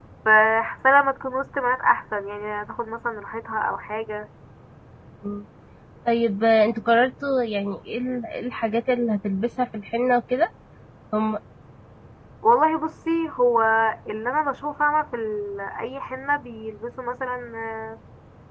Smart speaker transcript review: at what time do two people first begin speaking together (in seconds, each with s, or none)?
none